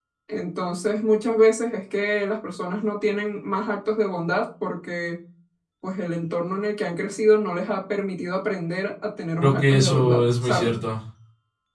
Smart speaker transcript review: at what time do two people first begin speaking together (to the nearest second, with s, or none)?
9 s